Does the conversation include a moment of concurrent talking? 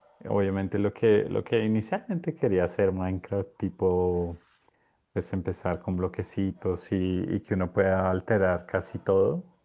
No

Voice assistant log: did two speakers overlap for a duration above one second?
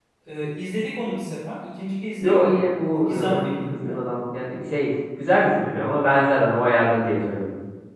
Yes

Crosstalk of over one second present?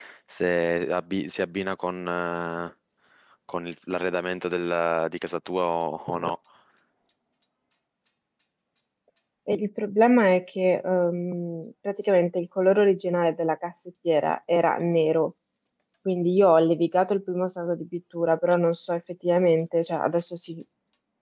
No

